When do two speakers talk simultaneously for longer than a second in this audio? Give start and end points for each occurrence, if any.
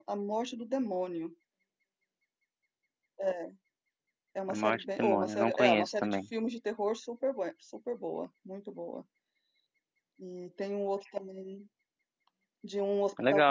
4.5-6.2

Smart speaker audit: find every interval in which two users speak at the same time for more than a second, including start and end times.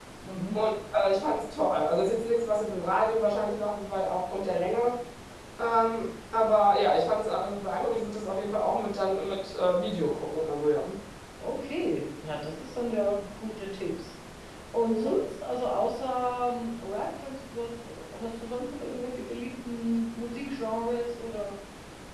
none

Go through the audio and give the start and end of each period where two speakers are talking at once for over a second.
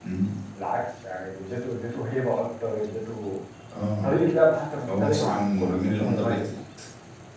5.0-6.5

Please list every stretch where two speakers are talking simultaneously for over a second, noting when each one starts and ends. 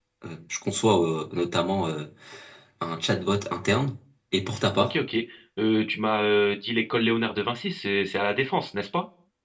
none

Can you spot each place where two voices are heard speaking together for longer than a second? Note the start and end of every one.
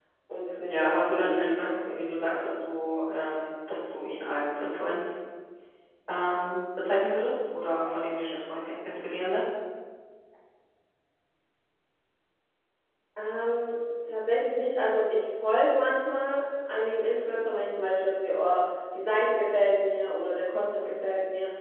0.6-2.6

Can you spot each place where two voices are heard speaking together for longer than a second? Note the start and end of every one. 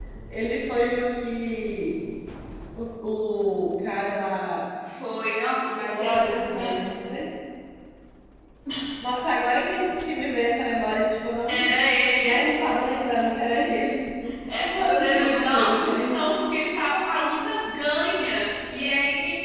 5.5-6.8, 14.8-16.3

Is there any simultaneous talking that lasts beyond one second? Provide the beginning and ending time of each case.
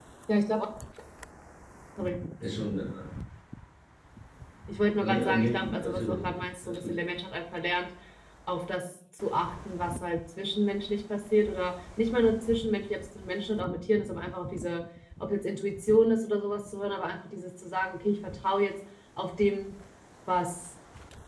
5.0-6.2

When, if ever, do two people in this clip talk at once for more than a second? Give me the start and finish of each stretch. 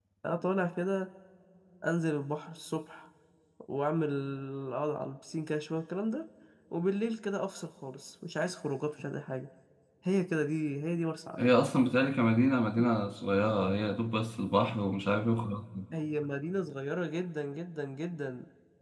none

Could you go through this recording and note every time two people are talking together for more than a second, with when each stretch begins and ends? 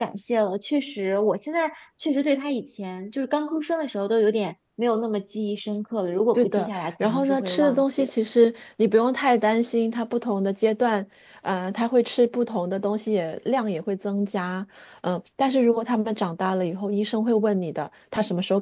6.3-8.1

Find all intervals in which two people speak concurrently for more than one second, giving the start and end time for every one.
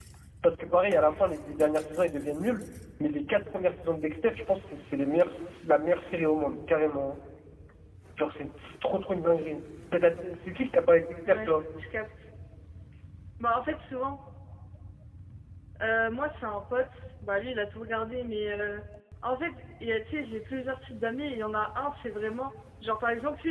none

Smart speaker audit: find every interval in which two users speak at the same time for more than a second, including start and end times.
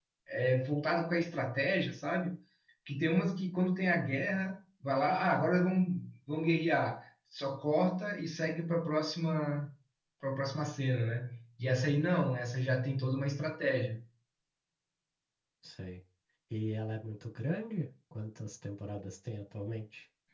none

